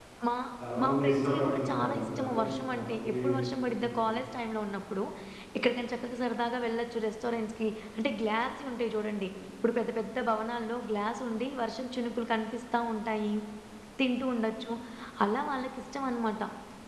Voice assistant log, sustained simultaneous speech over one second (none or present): present